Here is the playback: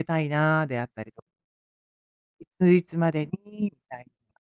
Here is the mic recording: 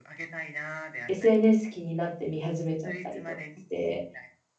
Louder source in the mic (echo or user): user